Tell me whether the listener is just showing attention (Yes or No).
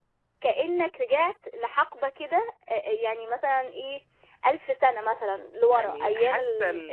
No